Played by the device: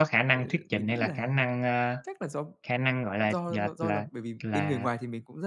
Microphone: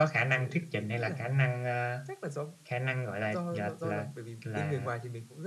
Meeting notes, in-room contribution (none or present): none